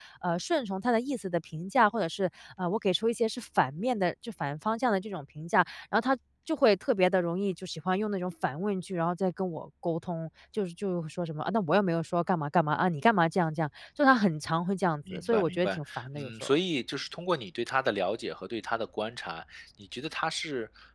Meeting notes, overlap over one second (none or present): present